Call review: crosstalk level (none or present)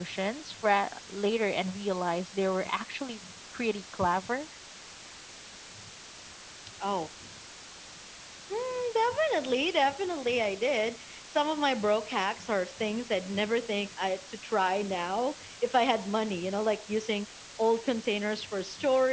none